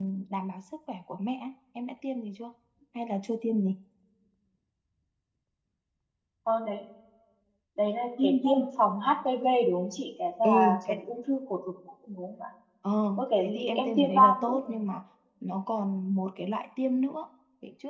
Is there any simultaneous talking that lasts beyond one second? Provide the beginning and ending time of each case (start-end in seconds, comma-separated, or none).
13.2-14.8